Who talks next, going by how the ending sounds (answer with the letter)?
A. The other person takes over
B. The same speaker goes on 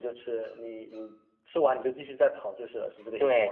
A